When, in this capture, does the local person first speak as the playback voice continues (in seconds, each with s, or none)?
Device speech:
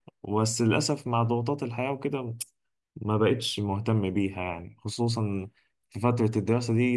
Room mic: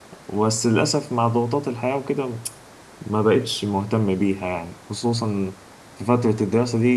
none